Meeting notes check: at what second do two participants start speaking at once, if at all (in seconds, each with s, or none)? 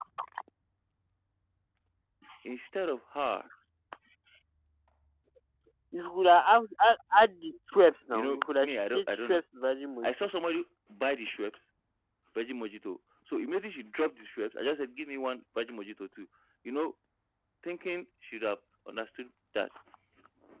8.1 s